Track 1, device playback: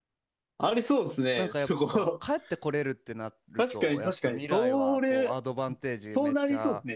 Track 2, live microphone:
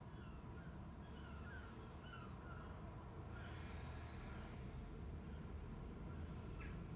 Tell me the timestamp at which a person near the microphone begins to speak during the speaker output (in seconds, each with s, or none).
none